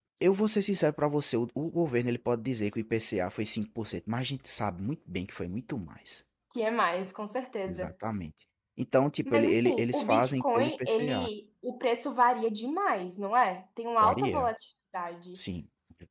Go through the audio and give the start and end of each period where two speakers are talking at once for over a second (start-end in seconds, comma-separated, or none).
9.2-11.3